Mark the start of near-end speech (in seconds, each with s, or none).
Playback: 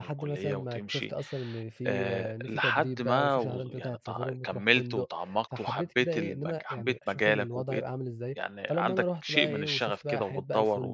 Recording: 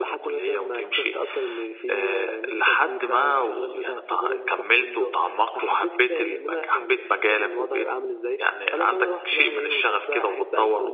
none